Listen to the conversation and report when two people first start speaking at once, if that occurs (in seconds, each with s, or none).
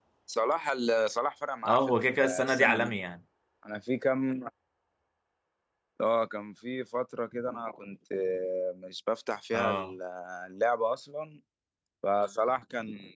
1.7 s